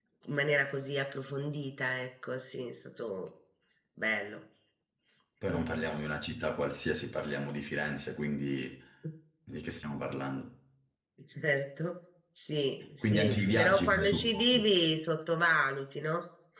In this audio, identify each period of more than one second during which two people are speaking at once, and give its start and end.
13.0-14.4

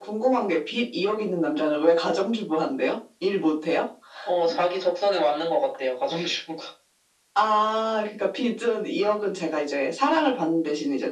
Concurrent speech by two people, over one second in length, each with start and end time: none

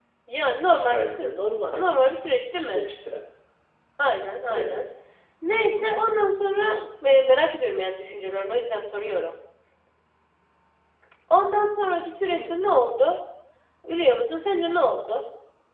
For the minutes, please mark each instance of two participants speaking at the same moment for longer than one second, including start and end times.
none

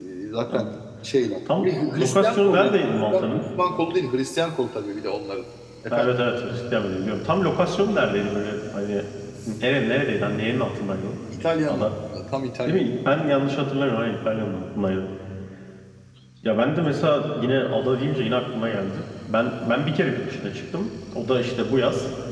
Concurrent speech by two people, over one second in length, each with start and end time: 1.6-3.4

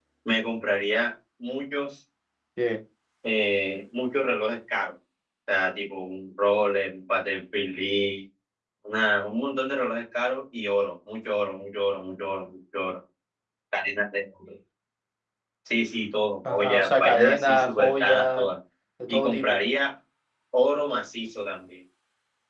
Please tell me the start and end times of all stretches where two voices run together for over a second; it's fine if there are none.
16.5-18.5

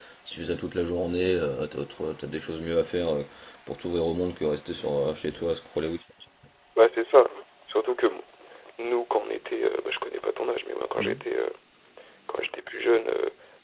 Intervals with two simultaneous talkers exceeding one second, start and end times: none

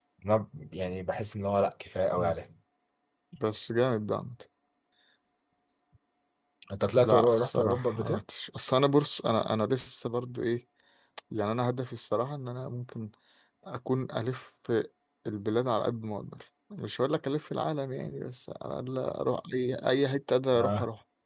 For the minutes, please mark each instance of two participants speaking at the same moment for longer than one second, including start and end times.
7.0-8.2

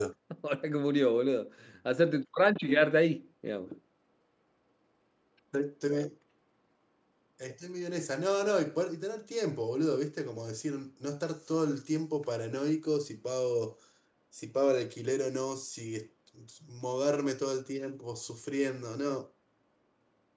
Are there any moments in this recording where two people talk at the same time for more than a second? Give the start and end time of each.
none

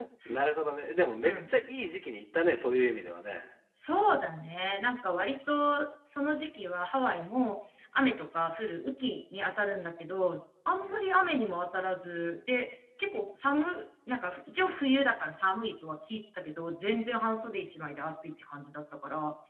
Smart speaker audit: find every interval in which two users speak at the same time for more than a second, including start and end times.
none

